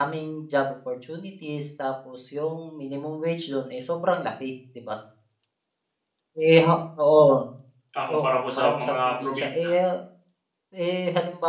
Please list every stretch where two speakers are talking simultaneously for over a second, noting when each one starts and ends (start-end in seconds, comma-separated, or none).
8.1-9.5